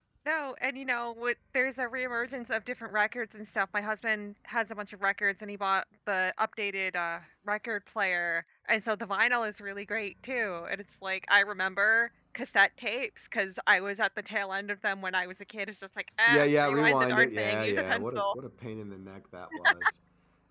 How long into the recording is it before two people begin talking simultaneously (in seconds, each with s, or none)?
16.3 s